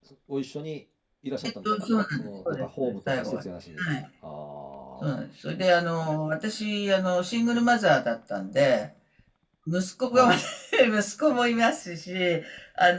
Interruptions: present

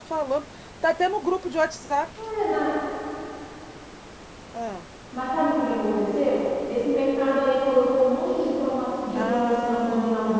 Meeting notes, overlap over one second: present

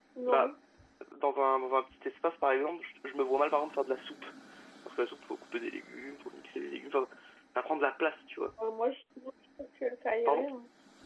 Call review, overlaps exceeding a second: none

